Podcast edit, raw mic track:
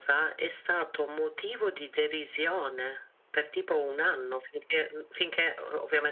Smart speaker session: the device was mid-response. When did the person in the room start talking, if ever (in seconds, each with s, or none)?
none